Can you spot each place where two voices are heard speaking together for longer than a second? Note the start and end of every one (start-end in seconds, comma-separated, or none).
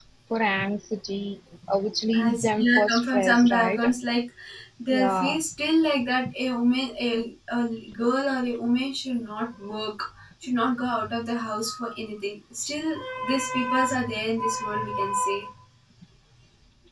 2.1-3.8